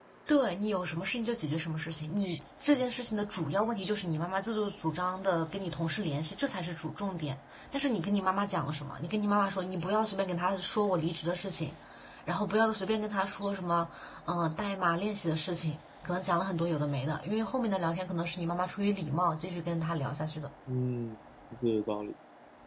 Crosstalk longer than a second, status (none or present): none